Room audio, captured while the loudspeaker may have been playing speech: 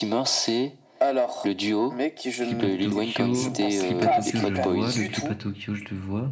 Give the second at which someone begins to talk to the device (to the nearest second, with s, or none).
2 s